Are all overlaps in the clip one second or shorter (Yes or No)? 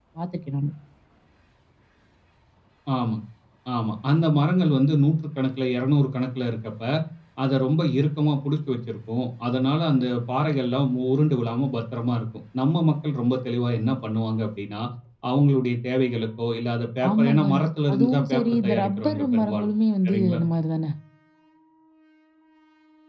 No